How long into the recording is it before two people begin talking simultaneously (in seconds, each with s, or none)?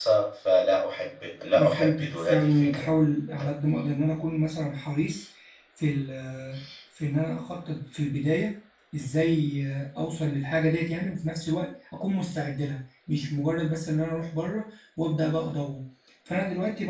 1.5 s